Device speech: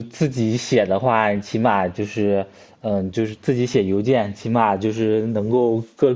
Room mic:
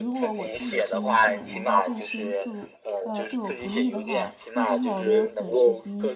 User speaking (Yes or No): Yes